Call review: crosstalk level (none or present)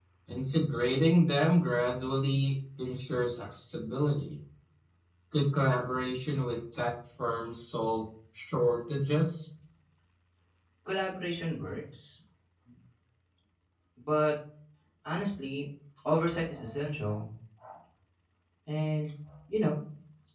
none